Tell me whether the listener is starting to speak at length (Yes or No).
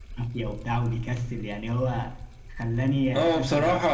Yes